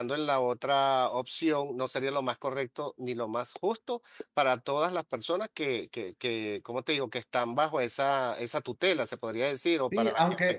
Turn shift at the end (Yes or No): Yes